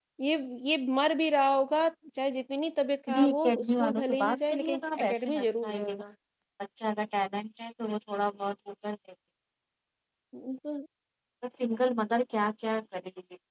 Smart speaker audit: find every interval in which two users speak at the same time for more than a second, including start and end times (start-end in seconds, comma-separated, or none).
3.1-6.0